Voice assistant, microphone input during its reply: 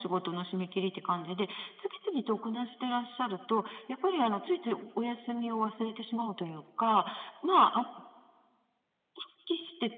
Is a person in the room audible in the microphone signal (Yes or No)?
No